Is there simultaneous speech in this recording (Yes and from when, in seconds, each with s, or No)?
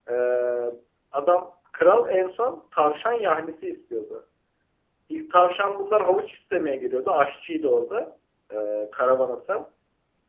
No